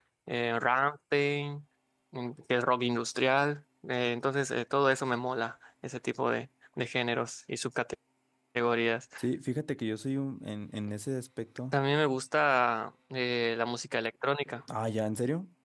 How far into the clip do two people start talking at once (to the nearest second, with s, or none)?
none